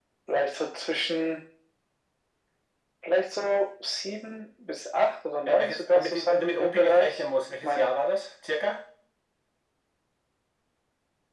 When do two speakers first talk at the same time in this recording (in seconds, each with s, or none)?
5.5 s